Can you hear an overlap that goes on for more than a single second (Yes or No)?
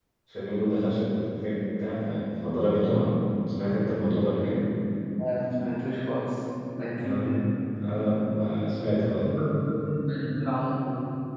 No